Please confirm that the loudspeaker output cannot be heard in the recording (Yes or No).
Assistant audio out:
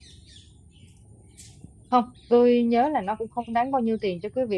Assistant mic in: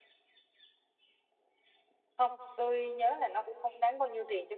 No